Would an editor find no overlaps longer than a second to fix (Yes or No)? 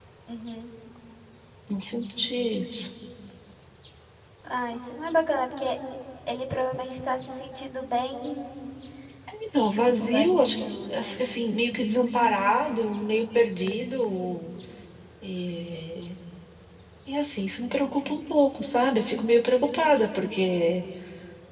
No